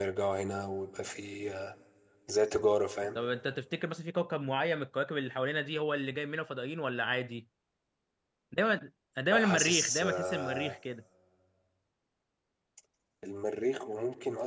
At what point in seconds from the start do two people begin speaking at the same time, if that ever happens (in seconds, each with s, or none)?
9.3 s